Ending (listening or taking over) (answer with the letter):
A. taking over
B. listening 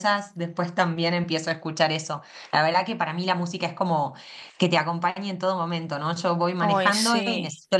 B